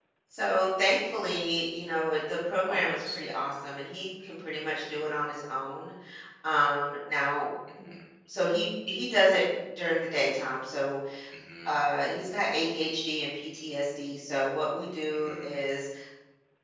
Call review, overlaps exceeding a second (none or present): none